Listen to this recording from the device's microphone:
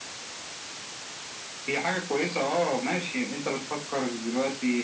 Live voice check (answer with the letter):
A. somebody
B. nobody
B